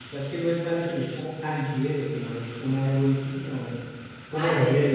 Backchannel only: No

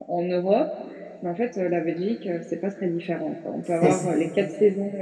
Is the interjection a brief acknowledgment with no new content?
Yes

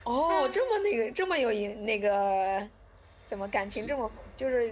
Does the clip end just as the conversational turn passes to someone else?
No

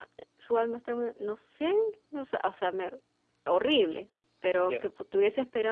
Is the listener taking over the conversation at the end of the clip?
No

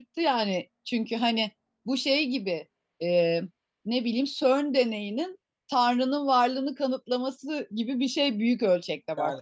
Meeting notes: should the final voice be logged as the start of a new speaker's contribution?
Yes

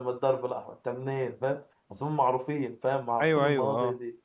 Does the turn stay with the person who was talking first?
No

